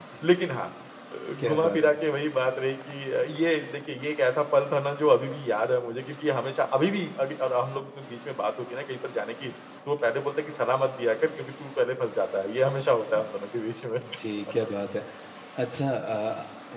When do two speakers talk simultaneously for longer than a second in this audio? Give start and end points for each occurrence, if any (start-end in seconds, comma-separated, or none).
none